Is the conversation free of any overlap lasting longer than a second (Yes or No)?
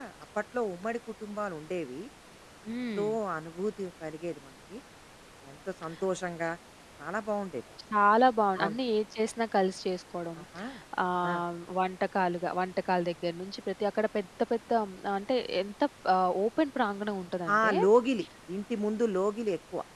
Yes